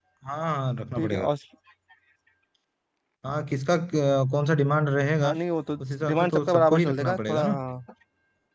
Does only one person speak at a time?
No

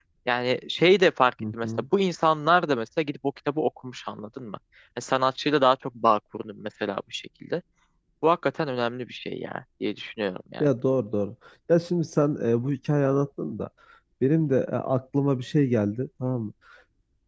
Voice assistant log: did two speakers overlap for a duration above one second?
No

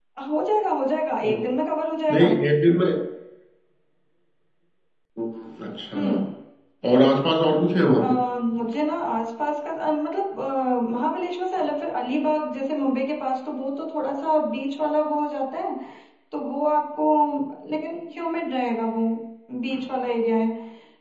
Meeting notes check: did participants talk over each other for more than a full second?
No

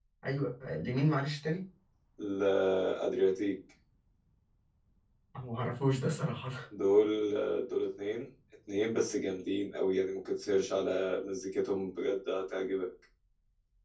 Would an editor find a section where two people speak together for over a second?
No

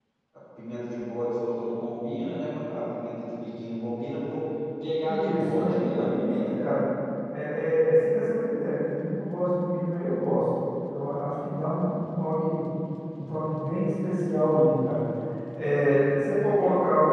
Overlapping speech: Yes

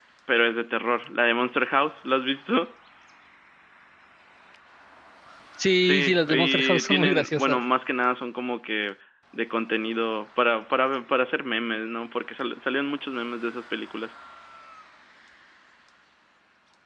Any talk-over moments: Yes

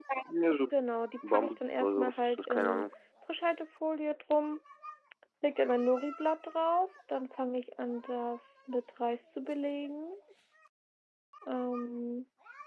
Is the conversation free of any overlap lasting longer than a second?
No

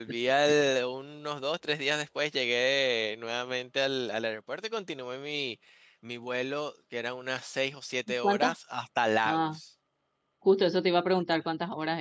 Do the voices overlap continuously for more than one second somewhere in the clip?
No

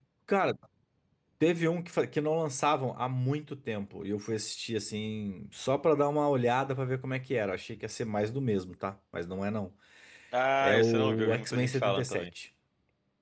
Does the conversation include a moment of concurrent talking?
Yes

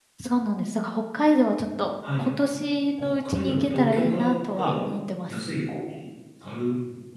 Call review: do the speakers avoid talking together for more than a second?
No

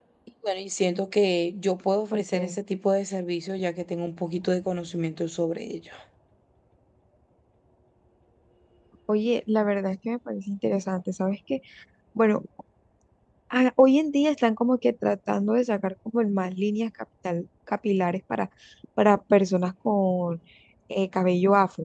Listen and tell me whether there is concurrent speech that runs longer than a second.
No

